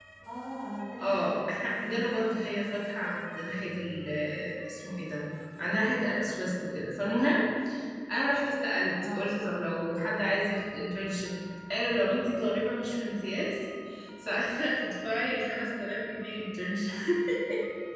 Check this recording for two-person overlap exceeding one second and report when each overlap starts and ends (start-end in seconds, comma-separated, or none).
1.0-2.5